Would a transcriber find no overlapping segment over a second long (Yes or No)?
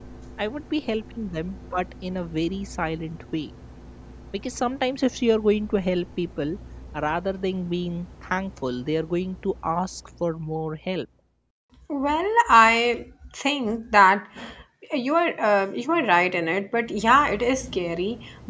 Yes